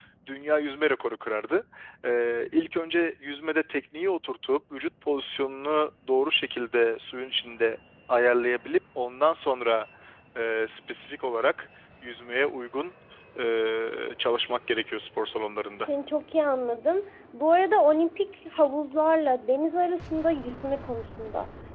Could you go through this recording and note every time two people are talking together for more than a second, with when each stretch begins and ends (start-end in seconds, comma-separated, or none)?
none